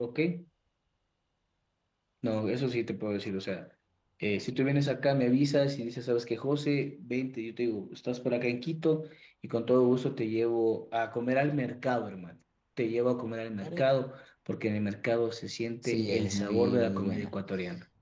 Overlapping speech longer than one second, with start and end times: 15.8-17.3

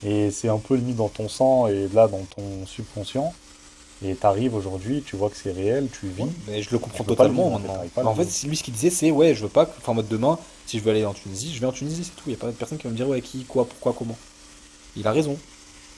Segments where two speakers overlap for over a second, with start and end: 7.0-8.3

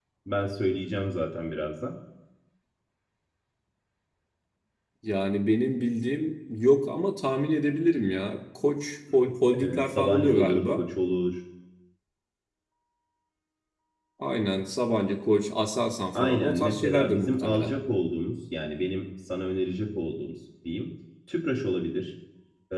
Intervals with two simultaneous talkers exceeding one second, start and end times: 9.6-10.8, 16.2-17.7

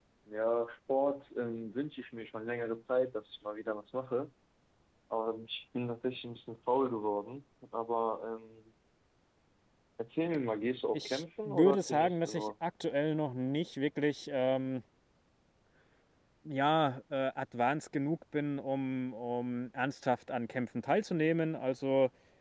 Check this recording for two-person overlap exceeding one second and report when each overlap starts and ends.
10.9-12.5

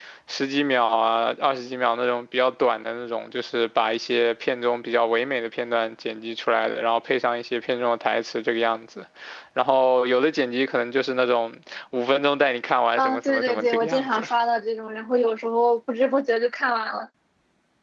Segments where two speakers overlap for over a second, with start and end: 13.0-14.2

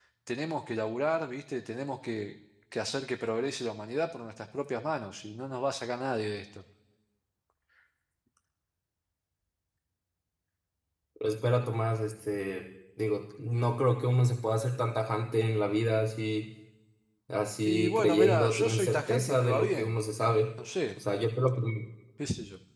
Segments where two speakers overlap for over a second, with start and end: 17.6-19.9

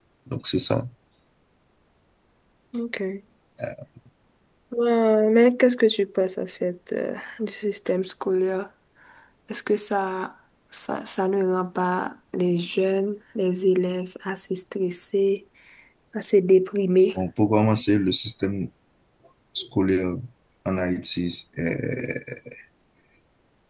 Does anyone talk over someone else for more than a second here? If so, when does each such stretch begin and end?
none

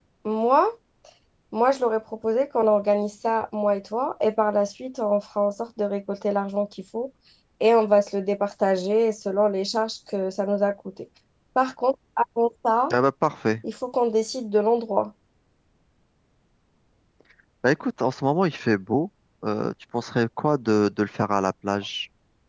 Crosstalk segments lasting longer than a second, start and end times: none

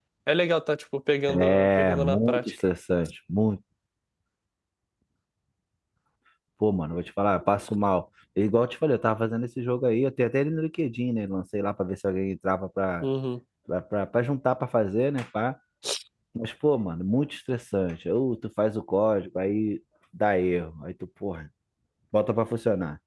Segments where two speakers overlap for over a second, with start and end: 1.3-2.5

